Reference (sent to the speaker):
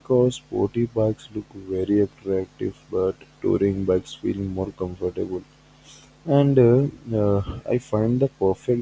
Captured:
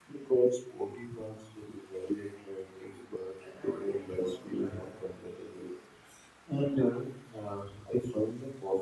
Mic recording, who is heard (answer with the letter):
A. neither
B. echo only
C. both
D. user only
C